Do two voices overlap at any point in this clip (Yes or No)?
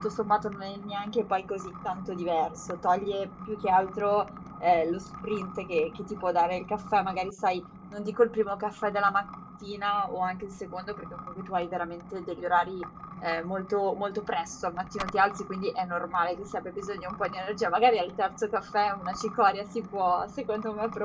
No